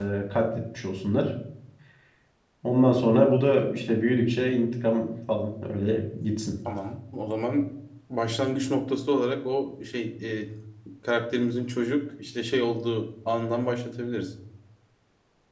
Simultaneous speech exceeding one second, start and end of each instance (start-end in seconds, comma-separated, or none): none